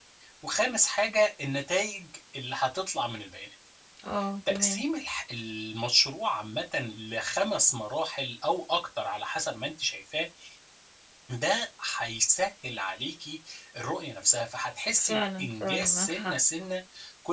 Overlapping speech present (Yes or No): Yes